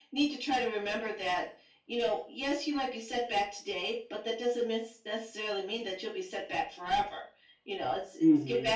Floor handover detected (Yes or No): No